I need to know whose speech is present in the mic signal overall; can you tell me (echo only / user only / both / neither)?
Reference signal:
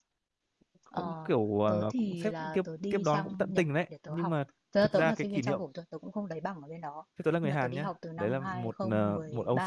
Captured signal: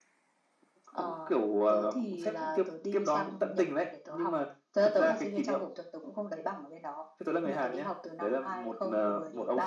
echo only